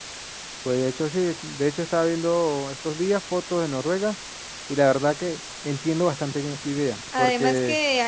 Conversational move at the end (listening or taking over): taking over